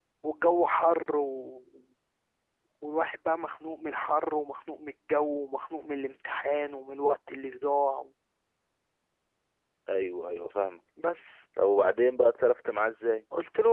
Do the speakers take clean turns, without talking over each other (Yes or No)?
Yes